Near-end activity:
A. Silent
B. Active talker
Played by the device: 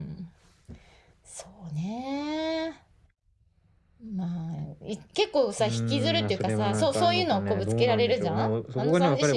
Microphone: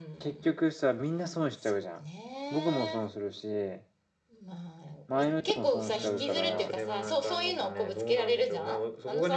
B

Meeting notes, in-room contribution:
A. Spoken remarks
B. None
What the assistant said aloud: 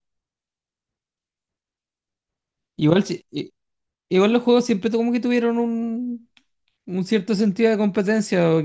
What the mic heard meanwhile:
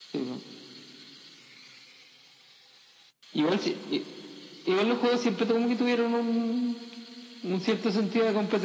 B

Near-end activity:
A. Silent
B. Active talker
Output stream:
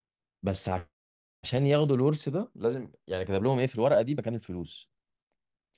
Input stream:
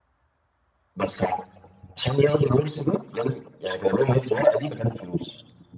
A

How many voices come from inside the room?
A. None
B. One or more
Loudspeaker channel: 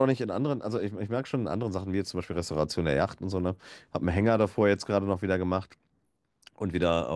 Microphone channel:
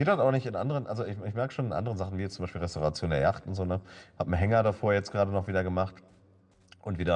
A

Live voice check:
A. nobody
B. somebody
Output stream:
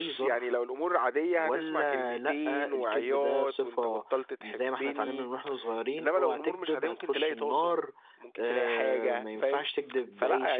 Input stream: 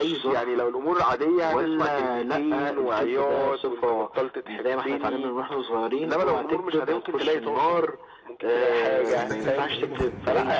B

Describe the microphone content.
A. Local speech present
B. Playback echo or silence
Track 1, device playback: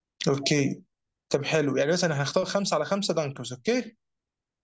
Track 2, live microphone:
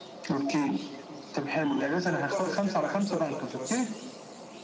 A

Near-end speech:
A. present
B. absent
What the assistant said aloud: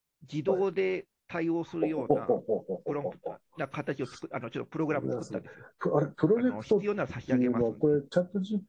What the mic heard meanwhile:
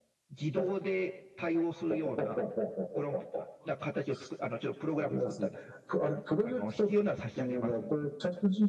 B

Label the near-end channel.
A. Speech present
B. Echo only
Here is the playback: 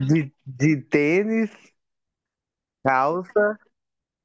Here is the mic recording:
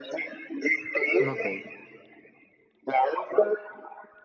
A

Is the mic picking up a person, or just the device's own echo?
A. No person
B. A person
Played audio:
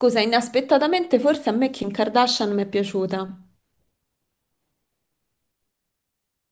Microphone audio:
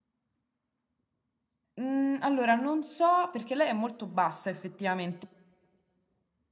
B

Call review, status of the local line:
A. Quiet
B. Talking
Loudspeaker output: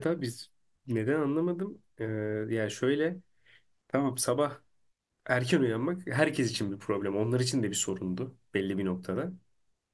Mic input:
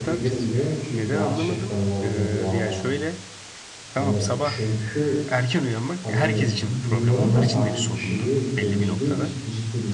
B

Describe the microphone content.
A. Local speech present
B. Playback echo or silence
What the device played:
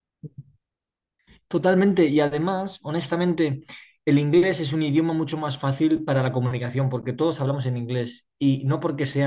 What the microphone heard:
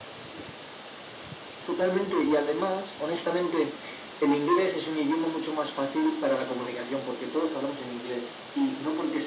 B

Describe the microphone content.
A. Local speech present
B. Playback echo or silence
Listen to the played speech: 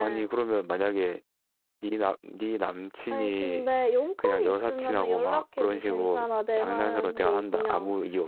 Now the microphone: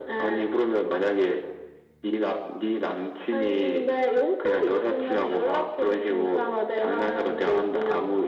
B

